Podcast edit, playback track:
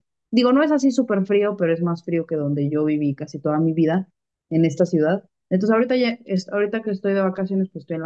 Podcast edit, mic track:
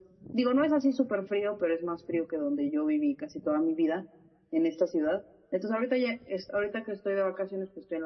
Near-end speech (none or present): none